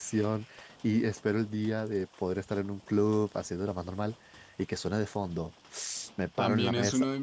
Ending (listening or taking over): taking over